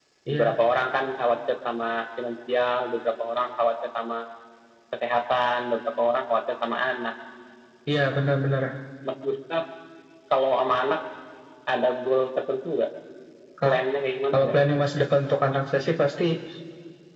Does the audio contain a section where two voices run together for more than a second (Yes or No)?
No